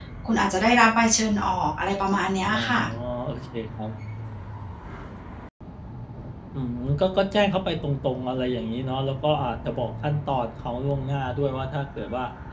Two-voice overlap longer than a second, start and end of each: none

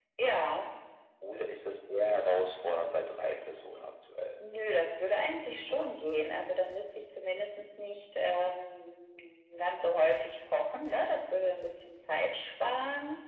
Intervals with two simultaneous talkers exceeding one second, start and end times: none

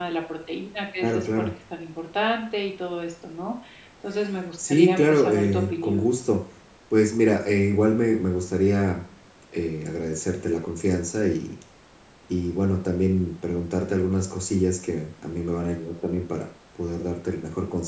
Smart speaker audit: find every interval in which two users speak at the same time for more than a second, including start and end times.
4.7-6.1

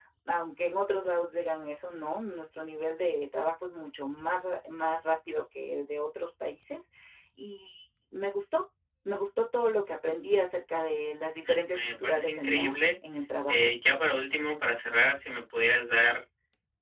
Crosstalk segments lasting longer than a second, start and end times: 11.5-12.8

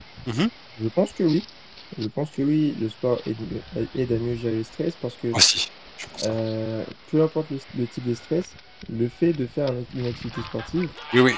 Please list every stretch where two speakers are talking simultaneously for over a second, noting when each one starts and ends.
none

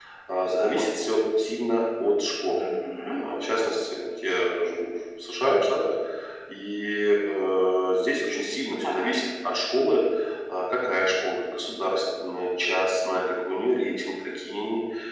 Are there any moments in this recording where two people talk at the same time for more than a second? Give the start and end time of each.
none

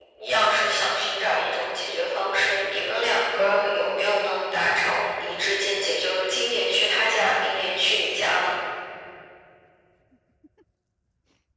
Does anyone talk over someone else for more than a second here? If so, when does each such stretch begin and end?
none

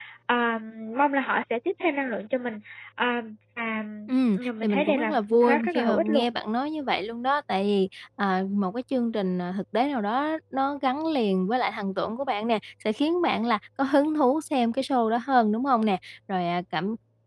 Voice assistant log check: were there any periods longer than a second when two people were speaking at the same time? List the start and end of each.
4.4-6.2

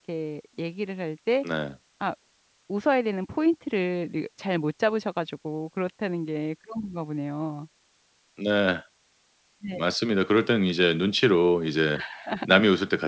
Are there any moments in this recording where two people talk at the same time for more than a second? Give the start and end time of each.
none

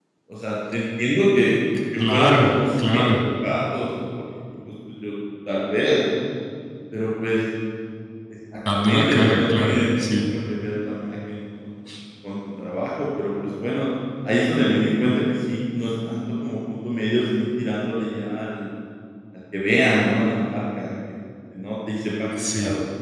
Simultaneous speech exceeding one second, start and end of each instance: 2.0-3.2, 8.7-10.2

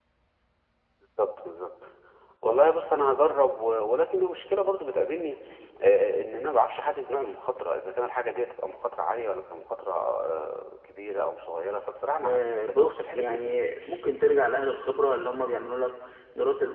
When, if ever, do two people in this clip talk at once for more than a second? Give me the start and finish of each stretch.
12.3-13.6

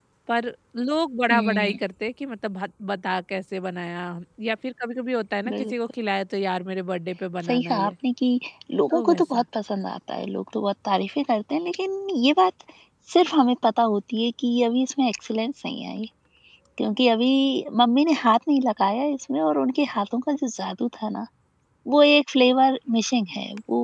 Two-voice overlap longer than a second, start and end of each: none

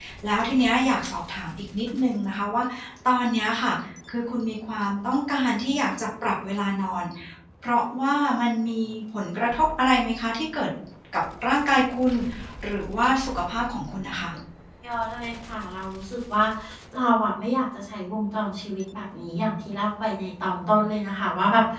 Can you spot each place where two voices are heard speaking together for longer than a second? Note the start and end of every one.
none

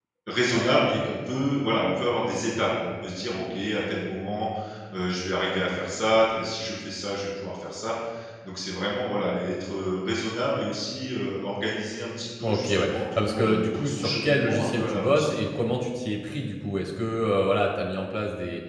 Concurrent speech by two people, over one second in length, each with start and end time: 12.4-15.2

